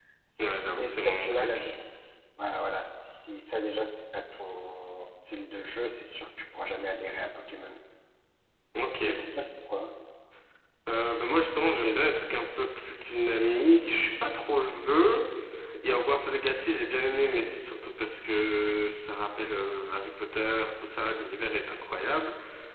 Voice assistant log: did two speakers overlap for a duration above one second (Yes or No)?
Yes